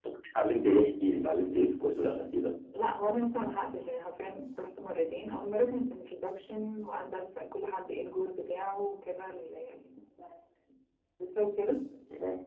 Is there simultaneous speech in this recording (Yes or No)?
No